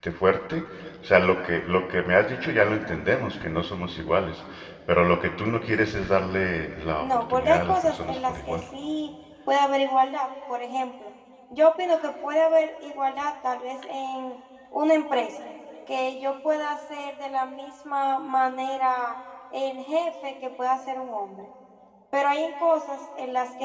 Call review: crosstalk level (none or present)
present